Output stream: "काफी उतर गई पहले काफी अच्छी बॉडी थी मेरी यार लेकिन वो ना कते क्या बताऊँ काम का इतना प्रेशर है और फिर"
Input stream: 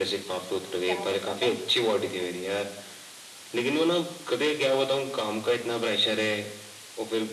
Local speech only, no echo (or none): क्या नहीं पता है